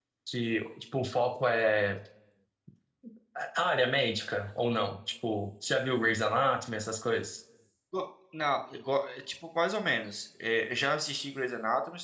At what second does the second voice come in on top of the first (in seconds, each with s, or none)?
none